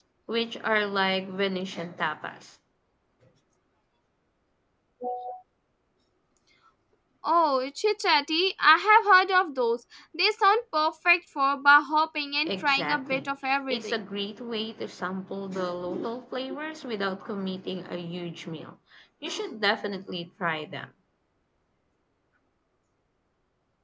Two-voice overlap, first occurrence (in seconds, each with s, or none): 12.5 s